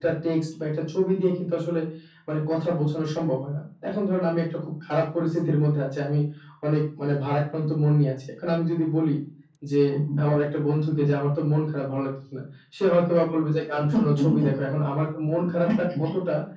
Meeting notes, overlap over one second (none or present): none